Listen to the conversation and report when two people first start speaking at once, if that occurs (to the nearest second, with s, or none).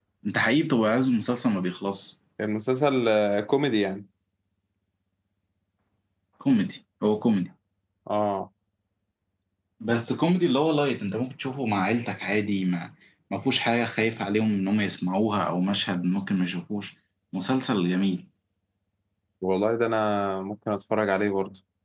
none